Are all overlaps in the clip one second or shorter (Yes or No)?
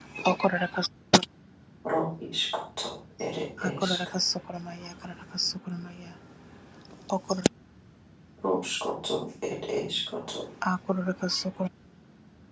Yes